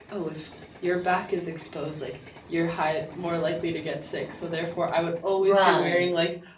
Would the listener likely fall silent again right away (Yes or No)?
Yes